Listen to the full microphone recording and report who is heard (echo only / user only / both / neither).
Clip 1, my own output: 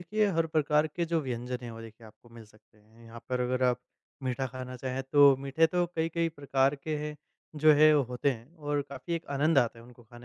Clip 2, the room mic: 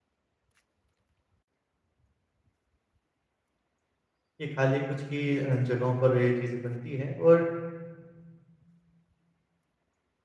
user only